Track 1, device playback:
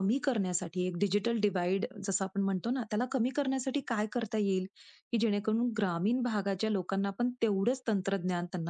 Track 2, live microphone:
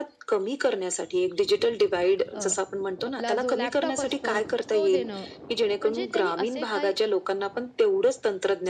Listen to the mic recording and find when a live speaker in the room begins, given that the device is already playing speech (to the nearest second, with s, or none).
2 s